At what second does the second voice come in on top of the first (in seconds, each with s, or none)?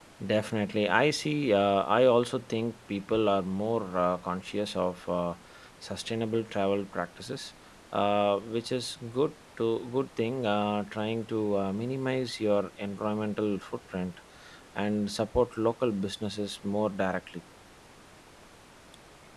none